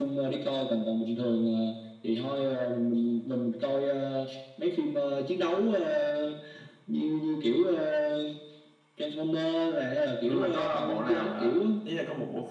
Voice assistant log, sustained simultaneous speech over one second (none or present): present